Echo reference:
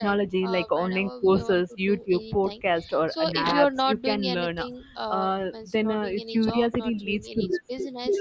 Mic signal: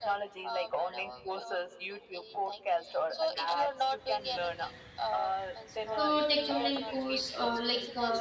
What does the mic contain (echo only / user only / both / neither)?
both